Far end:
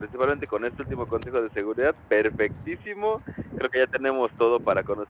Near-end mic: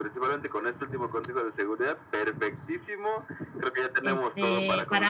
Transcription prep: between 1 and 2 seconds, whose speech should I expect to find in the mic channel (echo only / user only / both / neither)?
echo only